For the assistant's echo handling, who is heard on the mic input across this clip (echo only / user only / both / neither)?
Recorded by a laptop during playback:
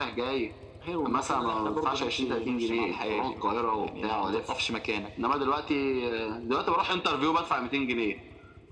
echo only